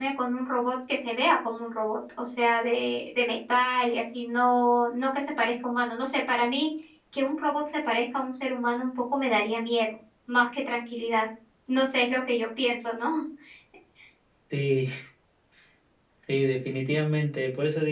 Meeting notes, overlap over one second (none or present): none